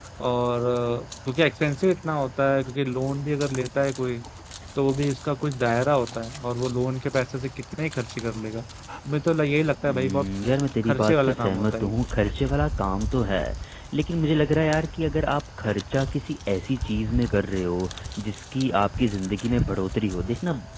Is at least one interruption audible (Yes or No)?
Yes